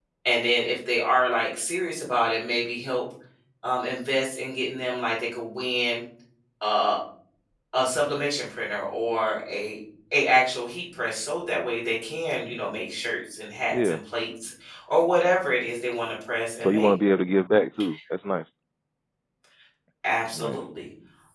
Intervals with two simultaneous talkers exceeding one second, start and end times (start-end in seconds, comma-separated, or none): none